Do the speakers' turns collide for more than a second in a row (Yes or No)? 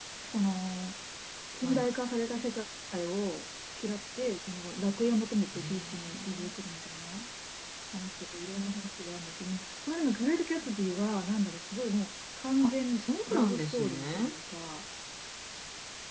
Yes